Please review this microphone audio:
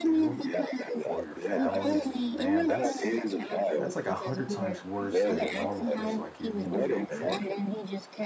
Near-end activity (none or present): present